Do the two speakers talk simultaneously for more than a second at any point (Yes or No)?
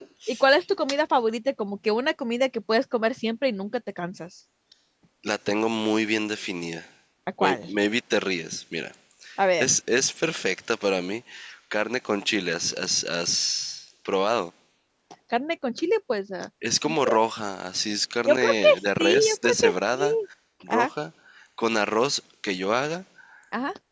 Yes